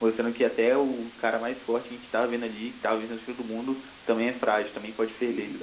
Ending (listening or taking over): taking over